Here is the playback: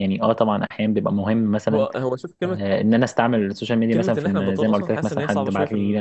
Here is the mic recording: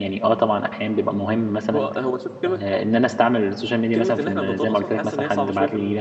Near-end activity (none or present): none